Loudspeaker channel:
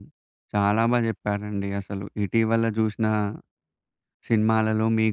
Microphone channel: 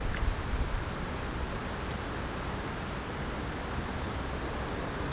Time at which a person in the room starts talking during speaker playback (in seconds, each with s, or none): none